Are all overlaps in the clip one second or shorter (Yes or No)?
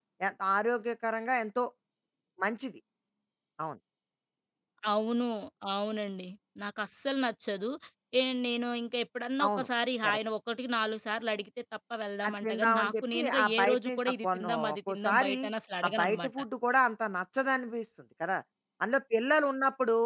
No